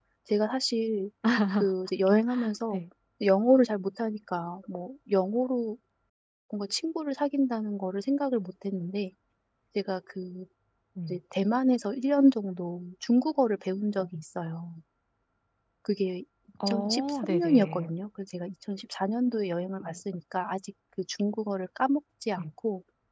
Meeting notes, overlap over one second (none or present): present